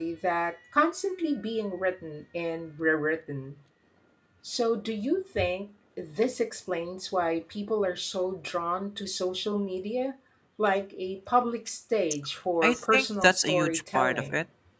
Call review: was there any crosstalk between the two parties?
Yes, from 12.6 s

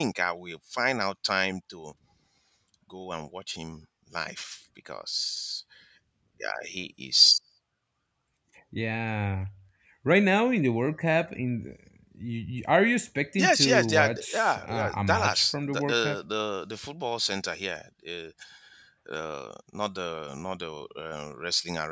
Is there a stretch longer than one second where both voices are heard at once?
Yes, from 13.4 s

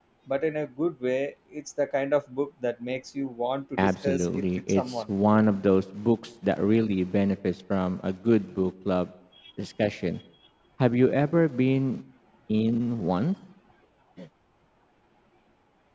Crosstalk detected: Yes, from 3.8 s

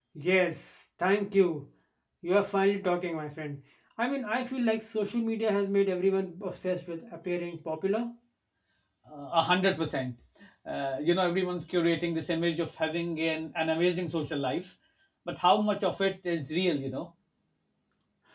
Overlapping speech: No

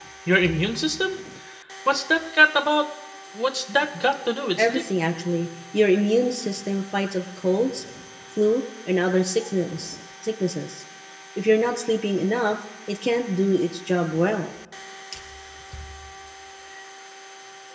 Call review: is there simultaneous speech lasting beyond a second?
No

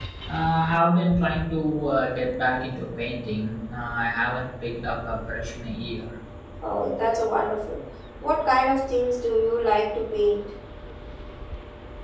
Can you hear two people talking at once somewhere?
No

